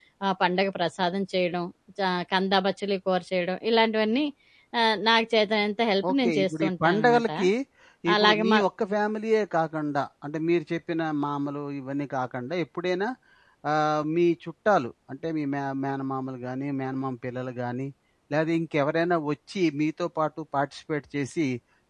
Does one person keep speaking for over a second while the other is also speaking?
Yes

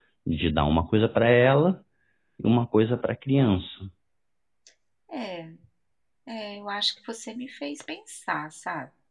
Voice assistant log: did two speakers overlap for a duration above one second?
No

